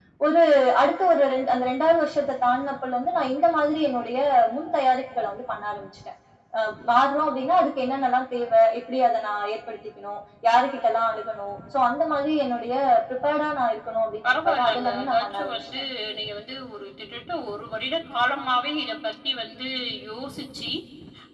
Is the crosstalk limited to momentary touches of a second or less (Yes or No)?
No